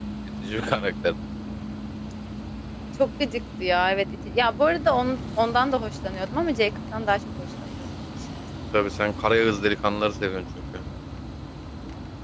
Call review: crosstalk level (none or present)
none